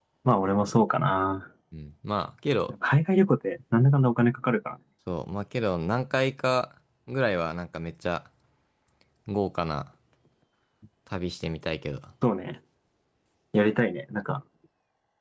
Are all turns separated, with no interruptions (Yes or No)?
Yes